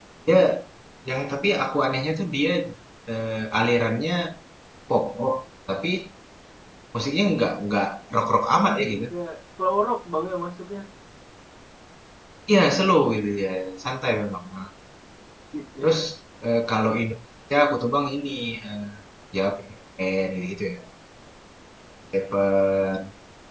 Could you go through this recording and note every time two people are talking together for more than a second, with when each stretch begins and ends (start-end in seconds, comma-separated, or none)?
none